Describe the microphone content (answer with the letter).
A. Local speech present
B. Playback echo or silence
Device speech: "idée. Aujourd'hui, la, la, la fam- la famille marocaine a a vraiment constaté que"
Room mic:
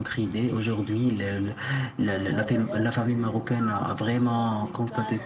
A